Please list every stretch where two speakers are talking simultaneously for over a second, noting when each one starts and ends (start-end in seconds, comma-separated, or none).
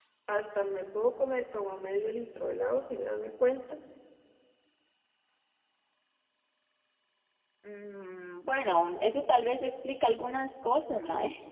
none